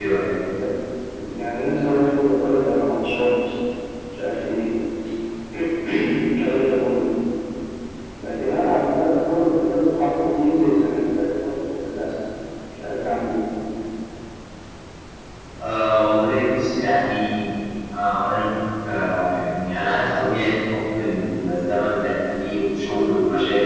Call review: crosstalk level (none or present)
none